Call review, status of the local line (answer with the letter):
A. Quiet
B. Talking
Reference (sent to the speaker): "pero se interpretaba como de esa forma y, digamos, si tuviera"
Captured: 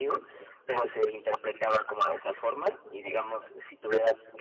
A